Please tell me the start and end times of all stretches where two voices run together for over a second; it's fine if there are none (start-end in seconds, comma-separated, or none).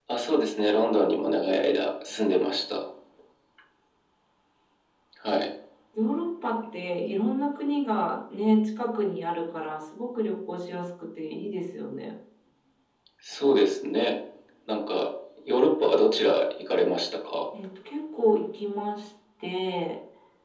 none